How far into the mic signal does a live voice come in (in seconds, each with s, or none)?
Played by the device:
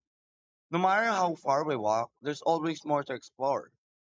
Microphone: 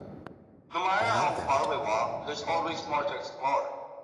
1.0 s